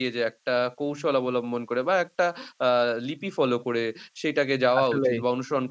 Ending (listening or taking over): listening